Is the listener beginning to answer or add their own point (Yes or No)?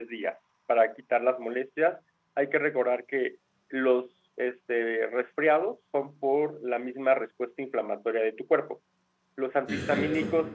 No